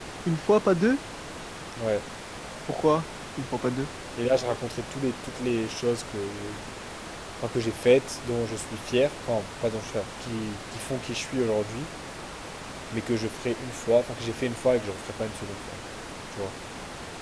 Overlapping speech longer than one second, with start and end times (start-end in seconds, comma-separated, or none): none